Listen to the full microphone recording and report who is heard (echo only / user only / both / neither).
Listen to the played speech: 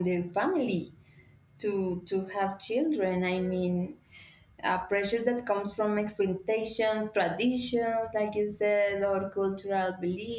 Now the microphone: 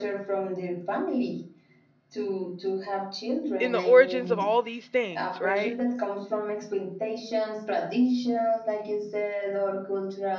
both